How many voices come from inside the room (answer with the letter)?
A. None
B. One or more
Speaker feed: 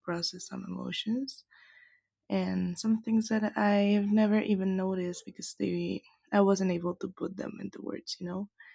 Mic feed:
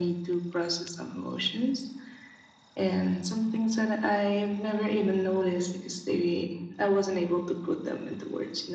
A